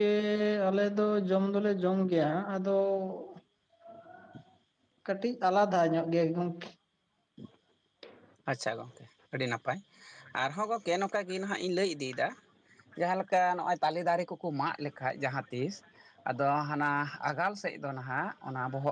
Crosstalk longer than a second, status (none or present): none